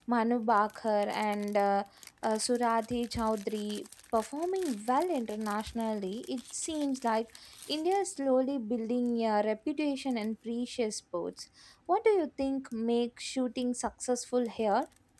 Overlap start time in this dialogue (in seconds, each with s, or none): none